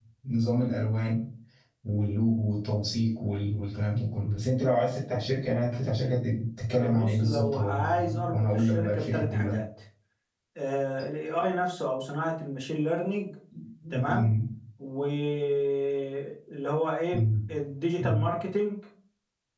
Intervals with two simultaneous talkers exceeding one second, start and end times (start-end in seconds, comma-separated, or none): 6.7-9.6